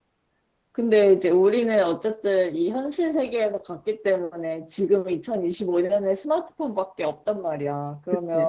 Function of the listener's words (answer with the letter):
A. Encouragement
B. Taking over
A